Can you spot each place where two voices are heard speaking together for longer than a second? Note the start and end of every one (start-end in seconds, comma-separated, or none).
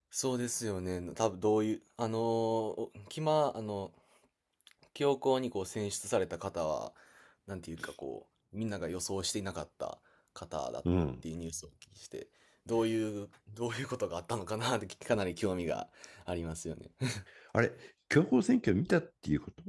none